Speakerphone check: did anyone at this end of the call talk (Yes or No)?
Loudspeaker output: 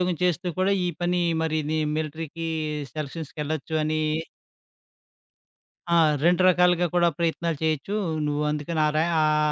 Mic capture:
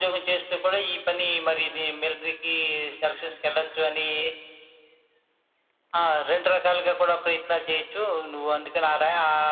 No